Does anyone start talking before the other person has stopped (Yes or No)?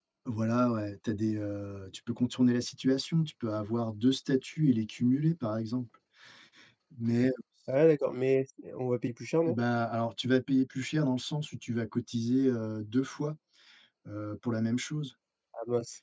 No